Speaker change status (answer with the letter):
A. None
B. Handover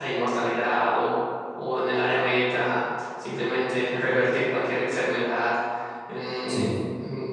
A